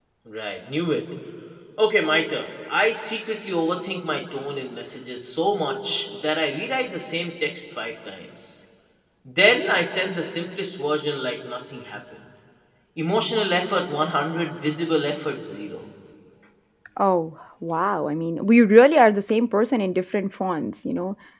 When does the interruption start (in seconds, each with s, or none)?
none